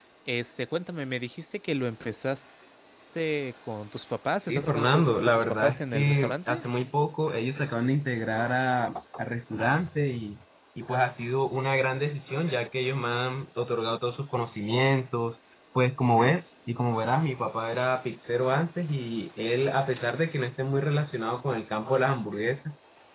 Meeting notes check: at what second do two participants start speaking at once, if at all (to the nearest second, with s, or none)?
4 s